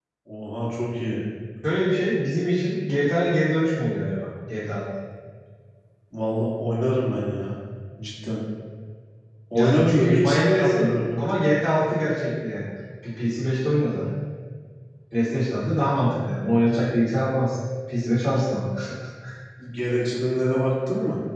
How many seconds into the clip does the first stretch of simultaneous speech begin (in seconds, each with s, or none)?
9.5 s